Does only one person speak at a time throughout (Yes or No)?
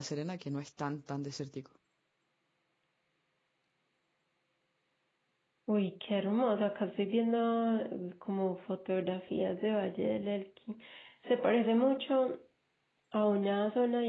Yes